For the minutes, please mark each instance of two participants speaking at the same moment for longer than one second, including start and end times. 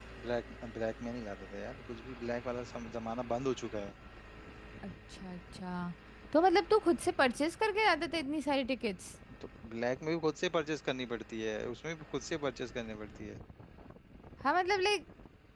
none

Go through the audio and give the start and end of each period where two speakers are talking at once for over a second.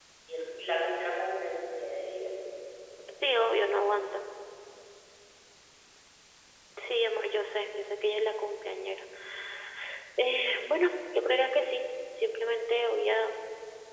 none

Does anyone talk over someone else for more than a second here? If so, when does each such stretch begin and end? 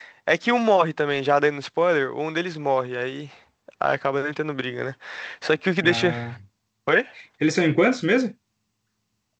none

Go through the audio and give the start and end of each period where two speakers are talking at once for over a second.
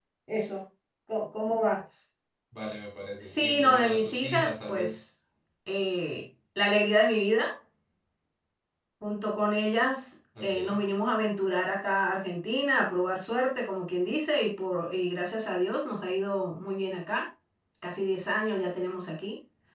3.2-5.0

